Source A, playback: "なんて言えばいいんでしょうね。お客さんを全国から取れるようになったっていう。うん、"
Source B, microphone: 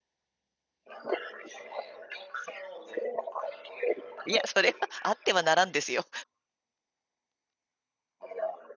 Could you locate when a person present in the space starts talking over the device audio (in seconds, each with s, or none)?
4.2 s